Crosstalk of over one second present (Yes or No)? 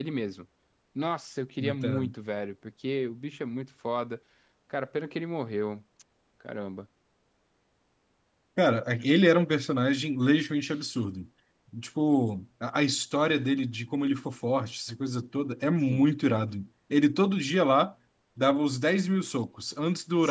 No